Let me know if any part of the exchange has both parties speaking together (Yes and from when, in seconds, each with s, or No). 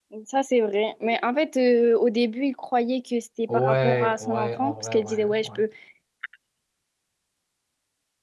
Yes, from 3.5 s